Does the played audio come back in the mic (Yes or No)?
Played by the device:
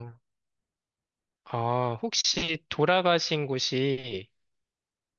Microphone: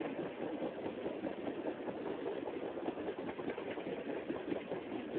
No